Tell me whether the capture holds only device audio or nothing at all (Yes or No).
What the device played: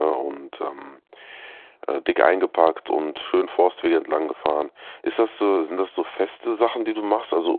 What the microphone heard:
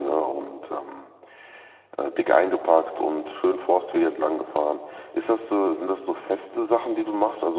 Yes